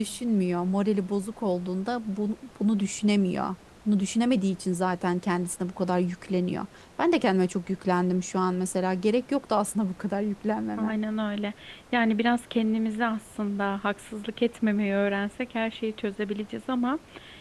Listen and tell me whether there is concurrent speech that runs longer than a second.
No

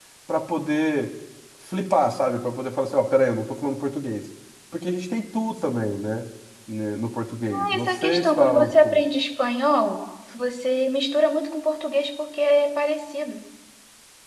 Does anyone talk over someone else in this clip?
Yes, from 7.5 s

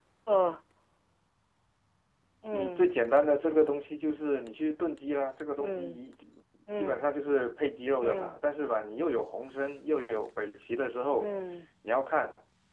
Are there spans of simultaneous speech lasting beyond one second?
No

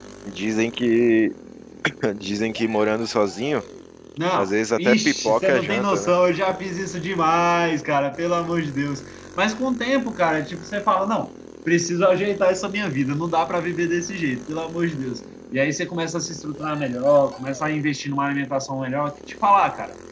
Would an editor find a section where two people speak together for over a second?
Yes, from 4.4 s

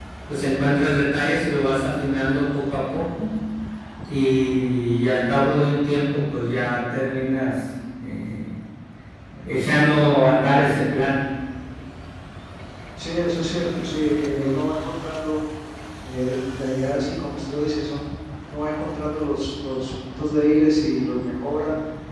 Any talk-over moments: No

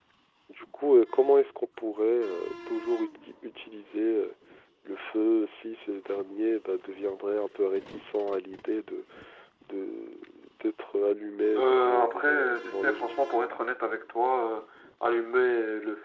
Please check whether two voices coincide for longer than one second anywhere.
Yes, from 11.5 s

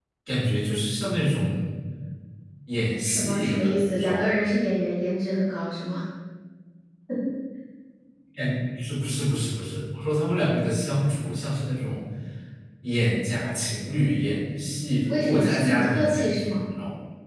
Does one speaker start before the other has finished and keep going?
Yes, from 3.0 s

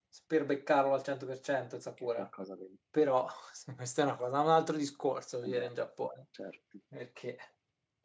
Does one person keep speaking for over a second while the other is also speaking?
No

